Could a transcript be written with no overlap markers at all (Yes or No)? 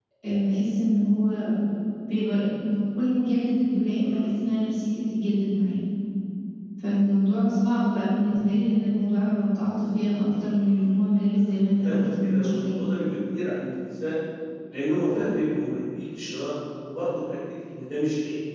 No